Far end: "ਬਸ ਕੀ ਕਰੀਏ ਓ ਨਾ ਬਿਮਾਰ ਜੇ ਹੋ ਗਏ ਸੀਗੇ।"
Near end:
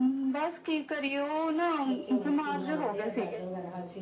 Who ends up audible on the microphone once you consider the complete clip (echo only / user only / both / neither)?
both